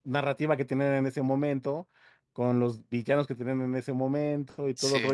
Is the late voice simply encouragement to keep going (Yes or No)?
Yes